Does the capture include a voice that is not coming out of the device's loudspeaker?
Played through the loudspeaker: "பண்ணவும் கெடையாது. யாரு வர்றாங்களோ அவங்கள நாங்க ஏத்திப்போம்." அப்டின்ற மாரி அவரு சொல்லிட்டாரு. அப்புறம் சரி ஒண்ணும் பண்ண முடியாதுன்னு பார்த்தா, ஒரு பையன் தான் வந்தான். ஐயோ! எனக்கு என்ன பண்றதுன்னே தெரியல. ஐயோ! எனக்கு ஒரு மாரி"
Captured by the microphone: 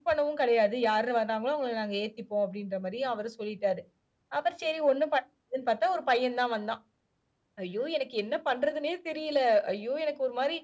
No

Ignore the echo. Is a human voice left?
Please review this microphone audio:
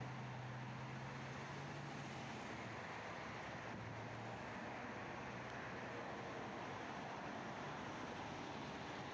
No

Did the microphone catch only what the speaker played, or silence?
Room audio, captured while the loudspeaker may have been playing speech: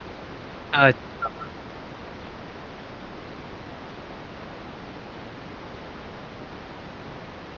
No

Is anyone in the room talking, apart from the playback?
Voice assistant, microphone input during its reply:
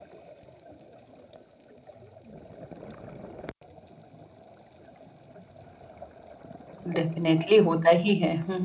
Yes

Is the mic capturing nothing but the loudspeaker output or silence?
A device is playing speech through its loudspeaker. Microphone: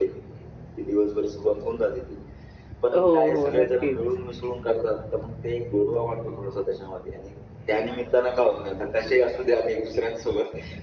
No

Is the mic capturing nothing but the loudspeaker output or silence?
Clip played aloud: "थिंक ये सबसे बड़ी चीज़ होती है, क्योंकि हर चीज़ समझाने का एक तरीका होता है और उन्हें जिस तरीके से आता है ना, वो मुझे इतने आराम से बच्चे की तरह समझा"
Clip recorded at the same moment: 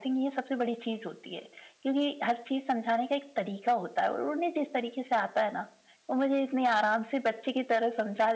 Yes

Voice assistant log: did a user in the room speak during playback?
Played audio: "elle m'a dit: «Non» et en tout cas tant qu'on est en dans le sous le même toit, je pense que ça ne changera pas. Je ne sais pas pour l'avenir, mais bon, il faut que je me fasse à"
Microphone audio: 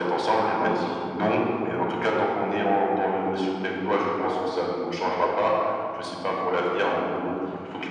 No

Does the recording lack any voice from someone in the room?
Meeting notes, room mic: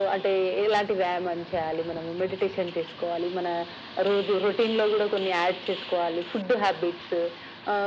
Yes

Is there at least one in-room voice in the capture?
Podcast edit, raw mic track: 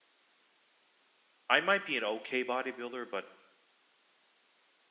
Yes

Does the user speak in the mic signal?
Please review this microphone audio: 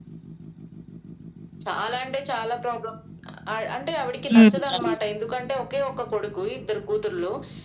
Yes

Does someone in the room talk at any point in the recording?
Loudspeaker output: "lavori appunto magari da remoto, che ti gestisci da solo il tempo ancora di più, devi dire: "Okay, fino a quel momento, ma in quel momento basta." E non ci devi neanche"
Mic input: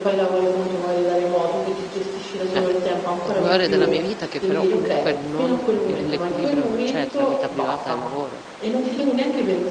Yes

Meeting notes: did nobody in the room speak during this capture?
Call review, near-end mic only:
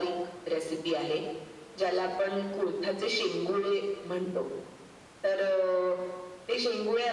Yes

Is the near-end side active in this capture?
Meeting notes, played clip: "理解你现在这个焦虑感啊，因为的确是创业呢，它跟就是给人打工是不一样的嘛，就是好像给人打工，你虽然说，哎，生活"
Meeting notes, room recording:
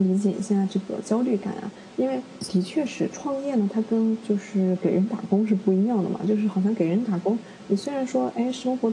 No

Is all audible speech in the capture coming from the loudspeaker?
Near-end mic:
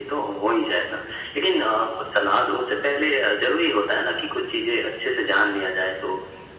Yes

